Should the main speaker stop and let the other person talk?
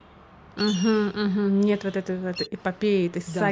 Yes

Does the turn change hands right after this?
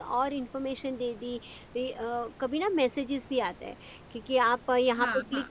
No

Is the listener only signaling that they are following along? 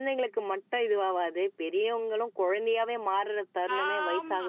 No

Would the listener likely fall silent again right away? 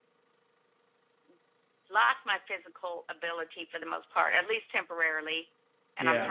Yes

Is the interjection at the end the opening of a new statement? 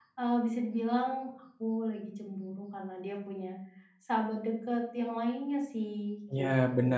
Yes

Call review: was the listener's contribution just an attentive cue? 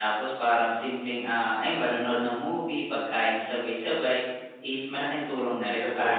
No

